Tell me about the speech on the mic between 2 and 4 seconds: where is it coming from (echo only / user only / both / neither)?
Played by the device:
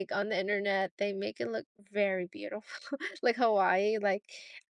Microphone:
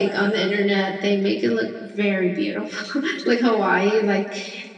echo only